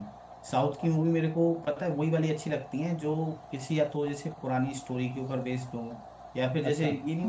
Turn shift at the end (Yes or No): No